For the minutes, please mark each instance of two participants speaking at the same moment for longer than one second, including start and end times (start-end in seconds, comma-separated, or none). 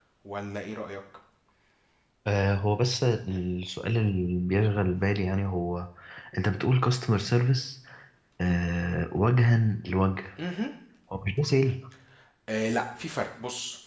none